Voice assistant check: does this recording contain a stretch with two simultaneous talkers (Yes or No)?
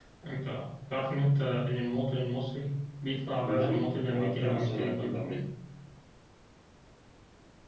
Yes